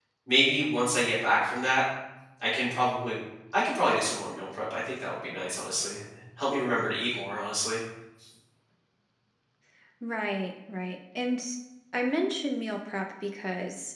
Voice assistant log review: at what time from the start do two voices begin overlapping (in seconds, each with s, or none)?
none